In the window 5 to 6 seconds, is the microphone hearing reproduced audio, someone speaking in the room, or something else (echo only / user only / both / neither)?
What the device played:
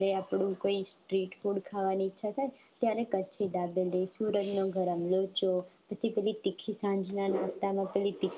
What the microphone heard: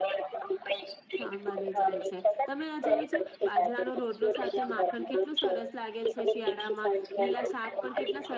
both